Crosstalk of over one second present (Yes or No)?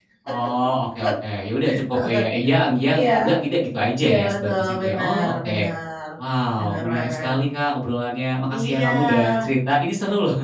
Yes